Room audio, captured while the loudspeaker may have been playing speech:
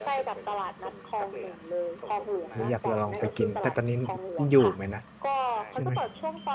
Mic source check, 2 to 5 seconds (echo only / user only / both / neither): both